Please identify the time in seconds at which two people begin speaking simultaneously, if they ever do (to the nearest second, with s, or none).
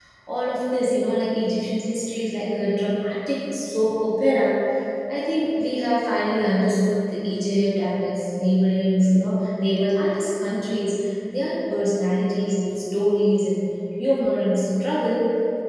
none